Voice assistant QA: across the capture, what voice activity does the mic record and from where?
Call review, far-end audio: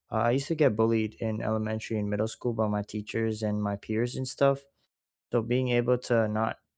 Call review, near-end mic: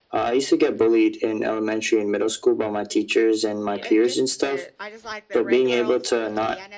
both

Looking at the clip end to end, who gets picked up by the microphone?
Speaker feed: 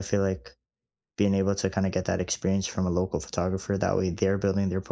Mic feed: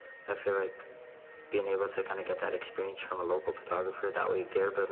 echo only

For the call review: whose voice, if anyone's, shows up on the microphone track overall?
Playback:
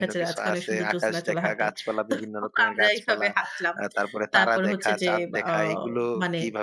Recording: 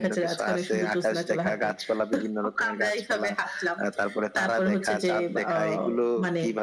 echo only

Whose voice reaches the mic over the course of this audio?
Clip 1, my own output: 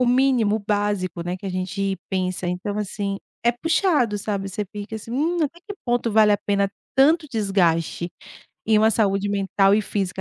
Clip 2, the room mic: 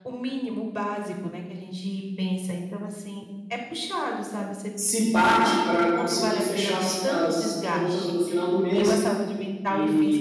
both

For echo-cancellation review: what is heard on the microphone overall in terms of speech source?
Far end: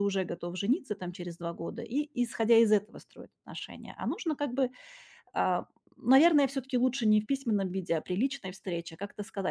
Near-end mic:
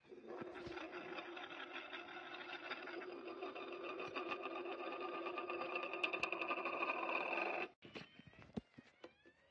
neither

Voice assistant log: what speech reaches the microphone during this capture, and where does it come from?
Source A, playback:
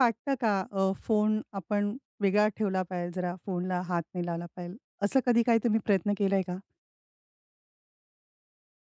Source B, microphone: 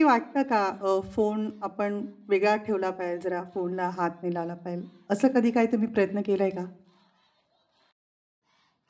echo only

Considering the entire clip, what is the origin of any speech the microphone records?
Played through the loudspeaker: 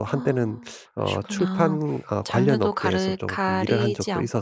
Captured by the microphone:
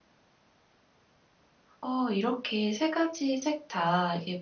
user only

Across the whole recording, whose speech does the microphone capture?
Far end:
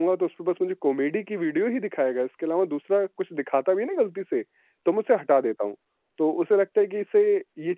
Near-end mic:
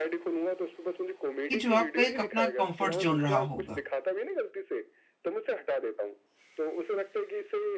both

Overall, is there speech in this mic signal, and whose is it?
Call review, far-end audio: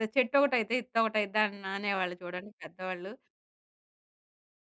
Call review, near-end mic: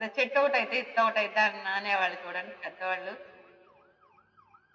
echo only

